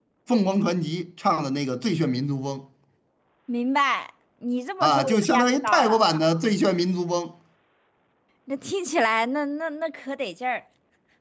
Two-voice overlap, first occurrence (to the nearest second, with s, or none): 5 s